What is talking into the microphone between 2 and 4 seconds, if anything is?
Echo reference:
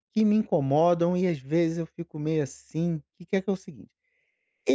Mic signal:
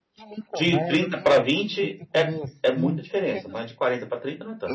both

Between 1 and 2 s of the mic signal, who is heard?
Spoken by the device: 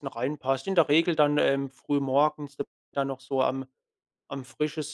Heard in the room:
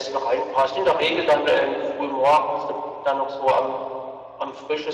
echo only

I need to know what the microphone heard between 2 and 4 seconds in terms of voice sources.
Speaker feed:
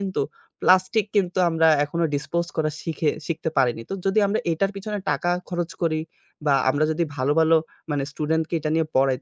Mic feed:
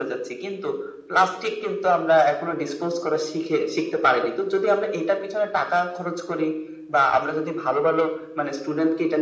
echo only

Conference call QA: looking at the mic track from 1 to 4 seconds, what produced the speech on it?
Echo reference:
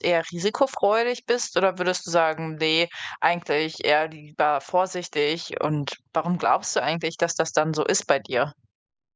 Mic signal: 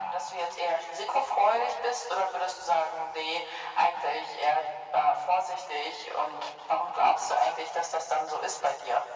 echo only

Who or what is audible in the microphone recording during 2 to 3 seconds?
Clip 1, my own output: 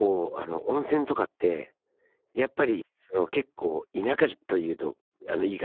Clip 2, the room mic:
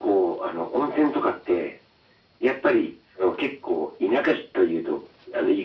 echo only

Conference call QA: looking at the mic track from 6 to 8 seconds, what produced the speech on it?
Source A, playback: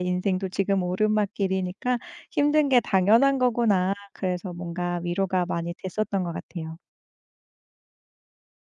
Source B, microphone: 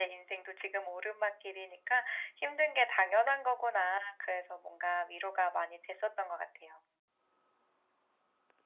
echo only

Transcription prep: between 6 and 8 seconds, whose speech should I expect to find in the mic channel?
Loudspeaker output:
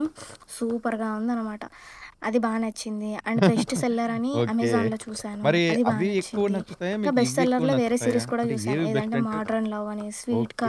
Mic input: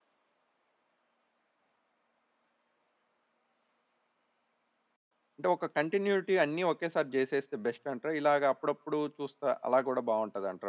user only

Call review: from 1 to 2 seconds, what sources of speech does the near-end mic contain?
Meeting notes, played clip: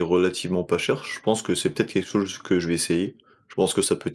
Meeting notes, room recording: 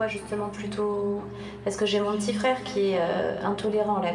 user only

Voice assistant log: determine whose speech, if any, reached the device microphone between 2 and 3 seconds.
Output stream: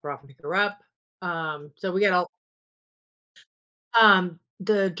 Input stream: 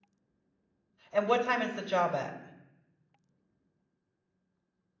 user only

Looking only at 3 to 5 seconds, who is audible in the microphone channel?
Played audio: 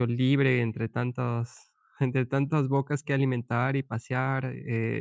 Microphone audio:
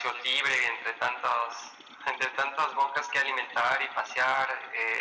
echo only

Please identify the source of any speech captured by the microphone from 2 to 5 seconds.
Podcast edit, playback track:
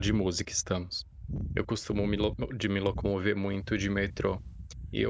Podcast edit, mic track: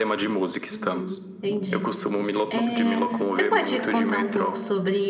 both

